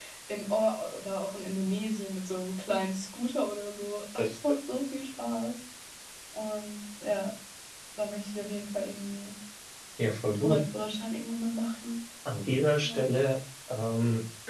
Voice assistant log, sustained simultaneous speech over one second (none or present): none